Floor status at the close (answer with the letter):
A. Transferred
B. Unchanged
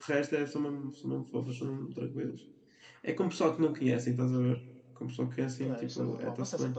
A